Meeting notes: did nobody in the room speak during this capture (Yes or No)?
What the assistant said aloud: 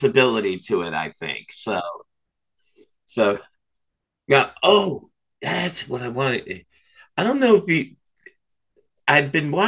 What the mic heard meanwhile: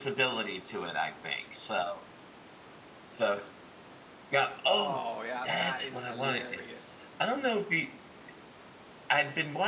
No